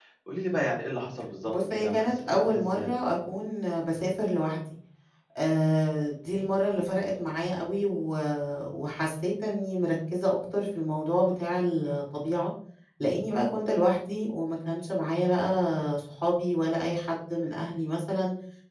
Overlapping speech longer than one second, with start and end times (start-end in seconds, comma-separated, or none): 1.4-3.0